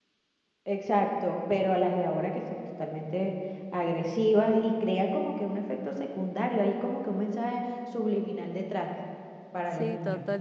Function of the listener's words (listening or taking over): taking over